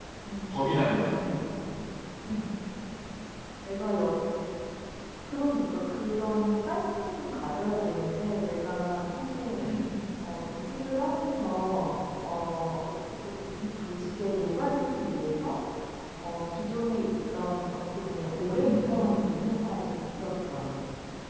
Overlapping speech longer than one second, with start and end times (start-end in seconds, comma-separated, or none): none